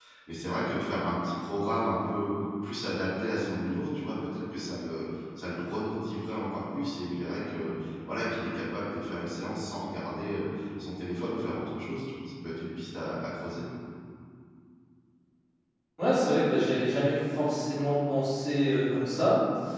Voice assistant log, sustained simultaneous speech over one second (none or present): none